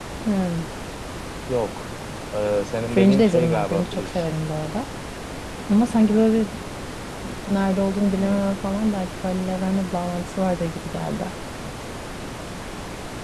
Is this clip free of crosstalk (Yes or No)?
No